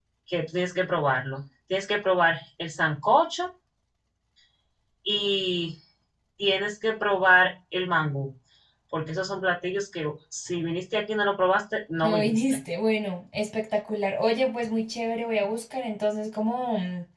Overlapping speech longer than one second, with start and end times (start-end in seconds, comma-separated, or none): none